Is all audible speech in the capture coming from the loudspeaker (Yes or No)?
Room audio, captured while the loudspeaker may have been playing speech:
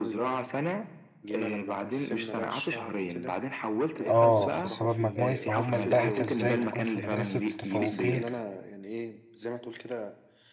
No